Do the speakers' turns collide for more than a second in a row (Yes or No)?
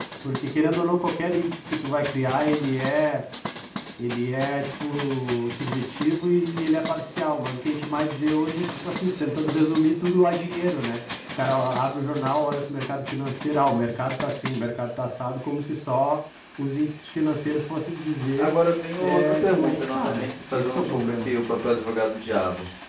Yes